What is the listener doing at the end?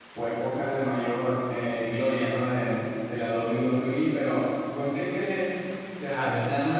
listening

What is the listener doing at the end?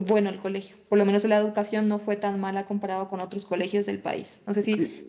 taking over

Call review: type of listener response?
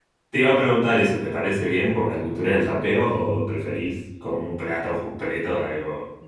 taking over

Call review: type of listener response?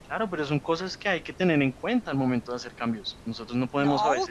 taking over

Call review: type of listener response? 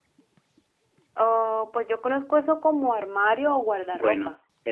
taking over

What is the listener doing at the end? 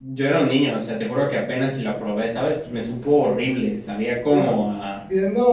taking over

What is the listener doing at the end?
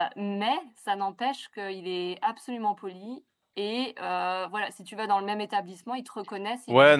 taking over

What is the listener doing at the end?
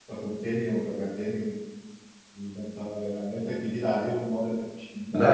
taking over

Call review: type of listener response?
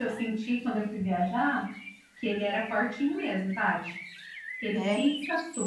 listening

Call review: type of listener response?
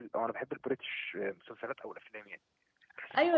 taking over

